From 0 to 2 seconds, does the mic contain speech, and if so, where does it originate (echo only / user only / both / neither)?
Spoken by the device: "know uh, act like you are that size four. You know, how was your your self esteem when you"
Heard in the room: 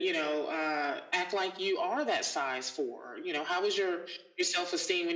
echo only